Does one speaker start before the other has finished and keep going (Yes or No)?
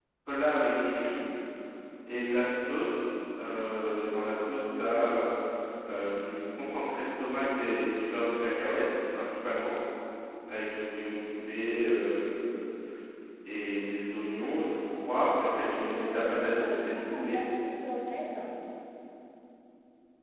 Yes